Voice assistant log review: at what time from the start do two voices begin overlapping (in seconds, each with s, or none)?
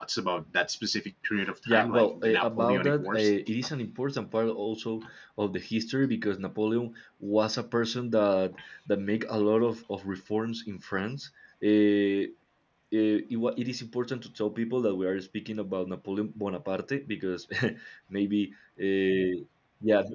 1.4 s